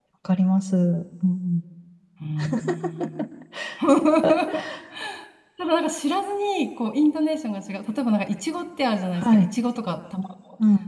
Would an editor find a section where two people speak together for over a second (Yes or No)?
No